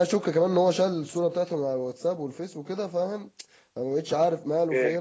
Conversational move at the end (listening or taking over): listening